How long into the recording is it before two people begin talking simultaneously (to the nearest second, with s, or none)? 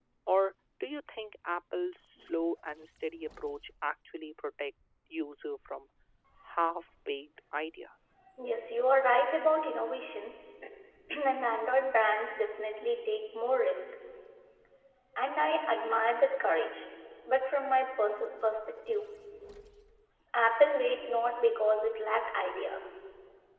none